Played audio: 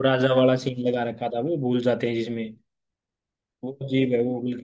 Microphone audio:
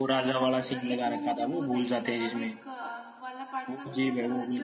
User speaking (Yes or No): Yes